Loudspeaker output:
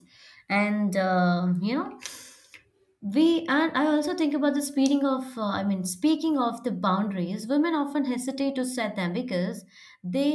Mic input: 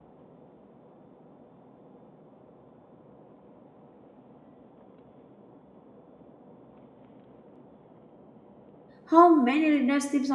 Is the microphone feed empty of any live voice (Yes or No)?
No